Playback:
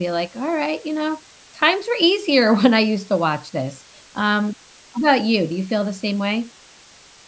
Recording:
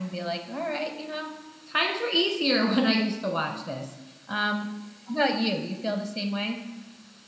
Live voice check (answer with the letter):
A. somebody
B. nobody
B